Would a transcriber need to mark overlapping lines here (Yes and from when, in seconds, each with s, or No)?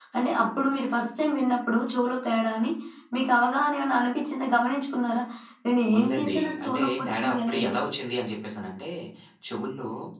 Yes, from 6.0 s